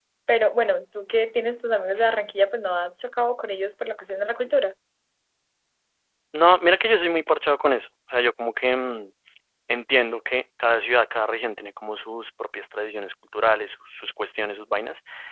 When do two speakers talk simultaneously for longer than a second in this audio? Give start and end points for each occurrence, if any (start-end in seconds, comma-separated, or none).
none